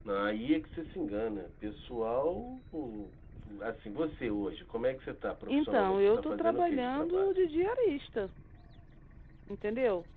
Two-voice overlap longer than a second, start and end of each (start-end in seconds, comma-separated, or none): 5.5-7.4